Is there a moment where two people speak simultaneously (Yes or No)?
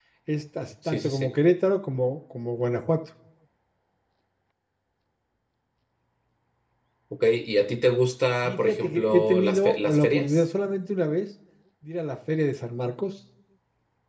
Yes